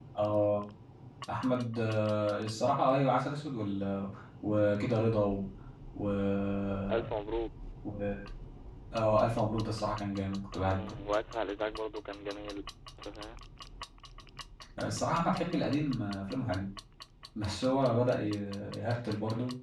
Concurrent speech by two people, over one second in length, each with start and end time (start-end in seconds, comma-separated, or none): none